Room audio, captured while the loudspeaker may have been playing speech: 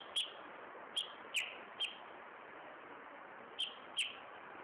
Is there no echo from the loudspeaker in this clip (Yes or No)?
Yes